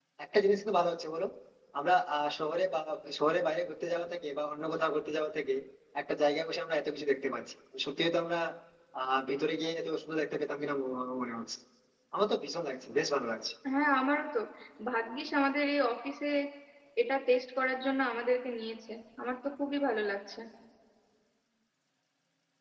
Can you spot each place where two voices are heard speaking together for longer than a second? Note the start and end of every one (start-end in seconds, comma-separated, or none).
none